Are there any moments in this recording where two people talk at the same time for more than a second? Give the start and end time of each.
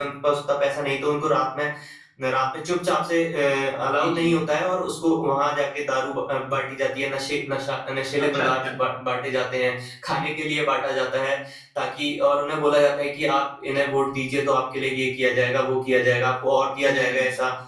none

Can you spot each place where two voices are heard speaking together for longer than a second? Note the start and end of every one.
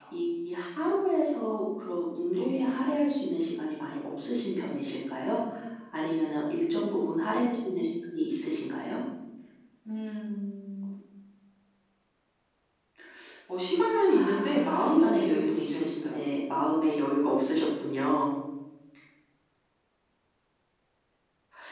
14.0-16.2

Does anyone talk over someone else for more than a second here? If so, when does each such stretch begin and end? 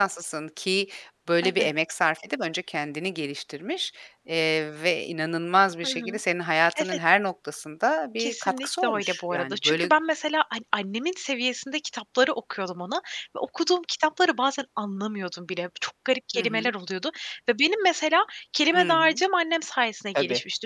8.2-9.9

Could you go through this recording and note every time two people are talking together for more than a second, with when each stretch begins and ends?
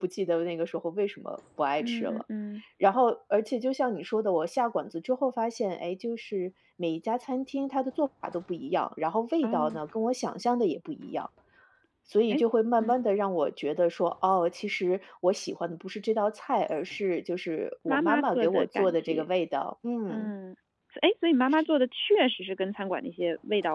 17.9-19.2

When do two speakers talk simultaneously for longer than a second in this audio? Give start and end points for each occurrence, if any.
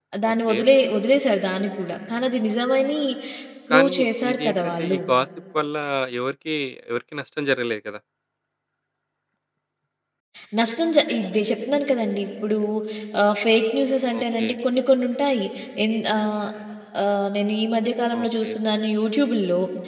3.7-5.0

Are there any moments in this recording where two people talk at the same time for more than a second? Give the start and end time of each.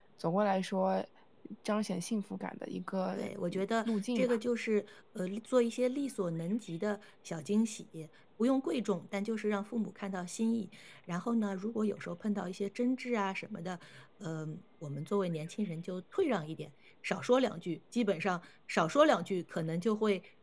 3.1-4.4

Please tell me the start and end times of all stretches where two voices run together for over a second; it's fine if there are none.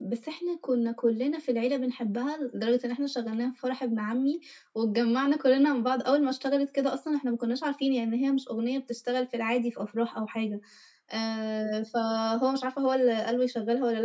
none

